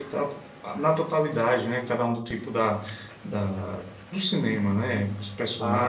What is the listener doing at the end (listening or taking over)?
taking over